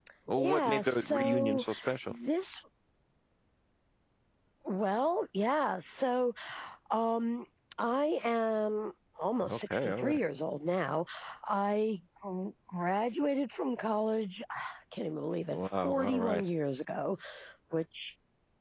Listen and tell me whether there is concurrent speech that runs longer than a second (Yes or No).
Yes